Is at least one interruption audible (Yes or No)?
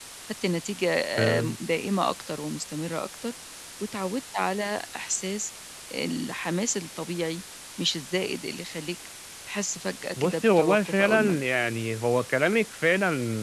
Yes